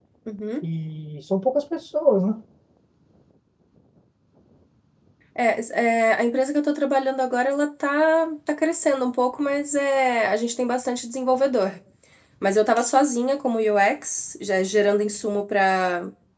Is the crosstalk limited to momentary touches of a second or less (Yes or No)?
Yes